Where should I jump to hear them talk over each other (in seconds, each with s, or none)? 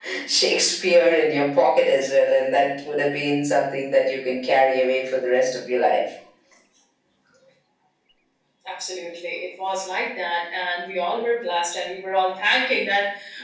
none